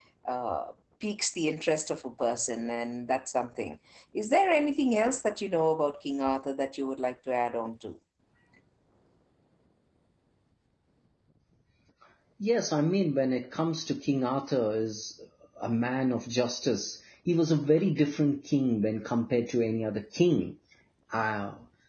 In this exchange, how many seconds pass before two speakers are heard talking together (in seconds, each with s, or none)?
none